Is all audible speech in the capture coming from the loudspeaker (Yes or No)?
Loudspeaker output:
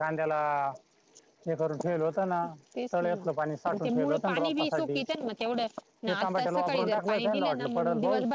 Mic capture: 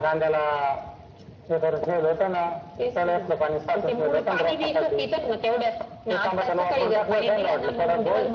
Yes